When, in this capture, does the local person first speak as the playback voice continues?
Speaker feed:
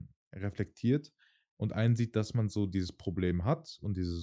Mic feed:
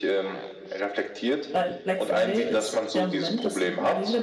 2 s

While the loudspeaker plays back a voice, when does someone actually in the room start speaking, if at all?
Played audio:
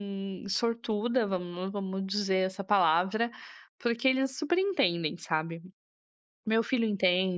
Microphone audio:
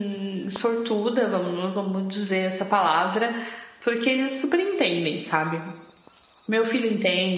none

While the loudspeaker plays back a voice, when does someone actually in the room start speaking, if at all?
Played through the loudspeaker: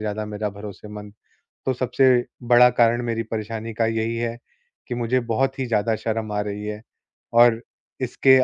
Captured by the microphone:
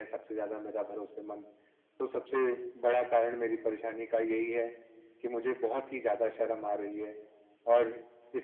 none

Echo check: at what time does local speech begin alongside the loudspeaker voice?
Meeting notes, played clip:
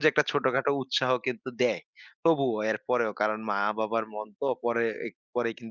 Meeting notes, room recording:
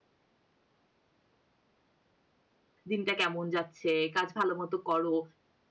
3 s

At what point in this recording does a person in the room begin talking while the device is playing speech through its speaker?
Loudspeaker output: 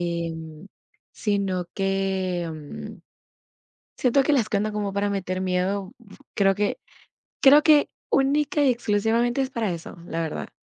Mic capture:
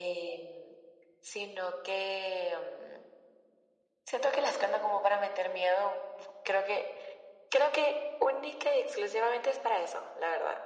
none

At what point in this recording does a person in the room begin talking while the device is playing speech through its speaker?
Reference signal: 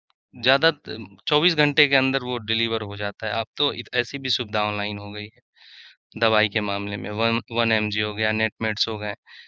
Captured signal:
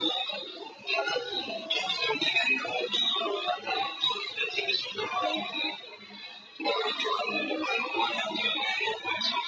none

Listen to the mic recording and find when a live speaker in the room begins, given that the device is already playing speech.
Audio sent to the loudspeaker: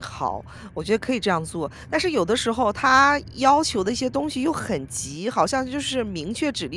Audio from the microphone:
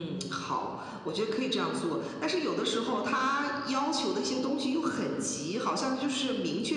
none

